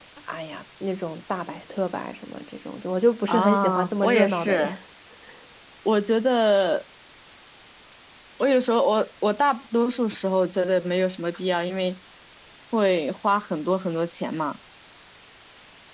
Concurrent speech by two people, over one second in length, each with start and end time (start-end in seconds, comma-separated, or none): 3.3-4.7